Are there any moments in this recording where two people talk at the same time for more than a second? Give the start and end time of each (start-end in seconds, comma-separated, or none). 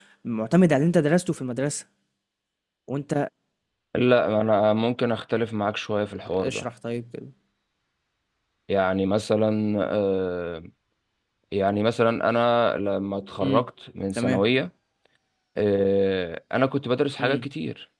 none